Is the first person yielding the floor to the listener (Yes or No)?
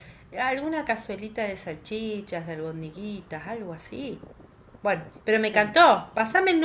No